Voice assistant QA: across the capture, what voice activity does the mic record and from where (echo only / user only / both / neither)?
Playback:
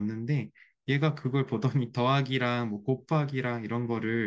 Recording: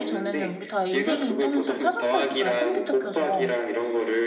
both